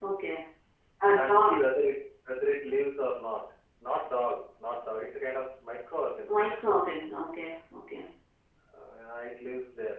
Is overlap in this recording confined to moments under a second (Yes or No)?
Yes